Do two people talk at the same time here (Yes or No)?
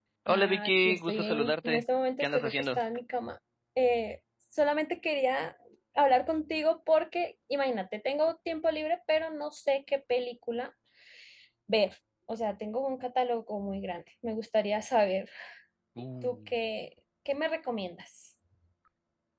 Yes